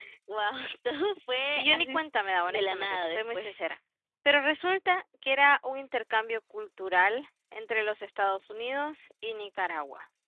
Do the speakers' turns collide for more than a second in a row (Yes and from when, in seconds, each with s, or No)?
Yes, from 1.6 s